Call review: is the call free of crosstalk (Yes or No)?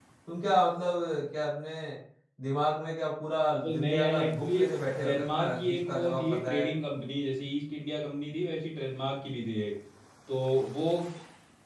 No